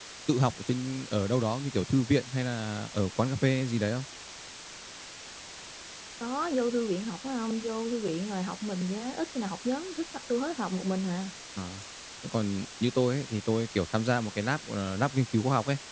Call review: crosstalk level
none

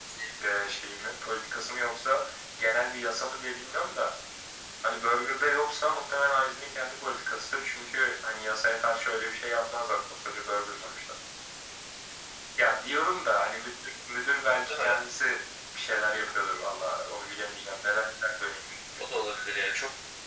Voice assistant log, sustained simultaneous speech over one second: none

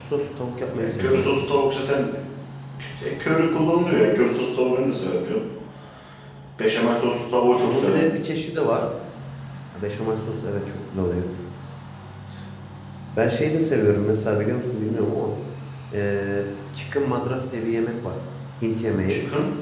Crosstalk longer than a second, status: none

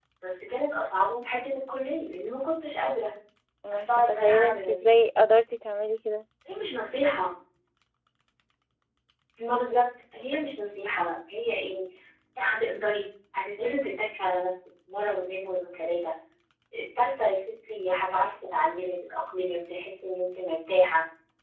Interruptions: present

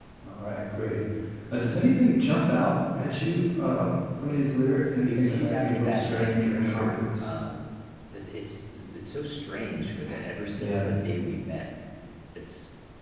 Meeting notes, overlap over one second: present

